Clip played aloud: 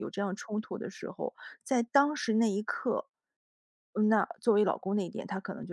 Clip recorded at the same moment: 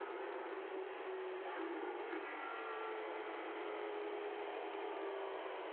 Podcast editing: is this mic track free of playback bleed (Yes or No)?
Yes